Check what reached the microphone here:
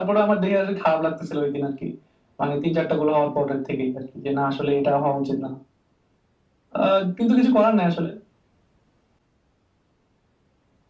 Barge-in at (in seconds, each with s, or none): none